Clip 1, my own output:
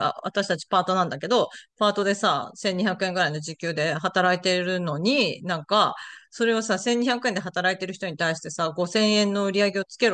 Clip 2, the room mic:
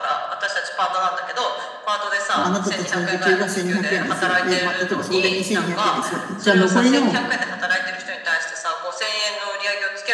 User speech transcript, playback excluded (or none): で、あなたたちの時給が1200円ですよ。で、まあ、例えばそこで2200円ですよ。でじゃあ残りの、